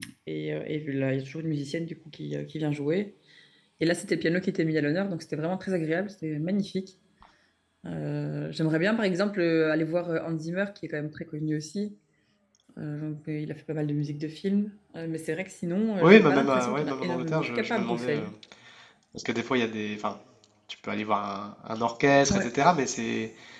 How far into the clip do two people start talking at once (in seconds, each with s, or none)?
16.0 s